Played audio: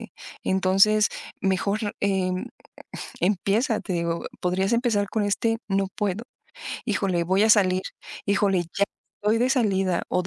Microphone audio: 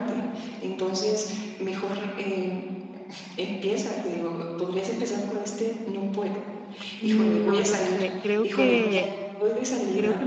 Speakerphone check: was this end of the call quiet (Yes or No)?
No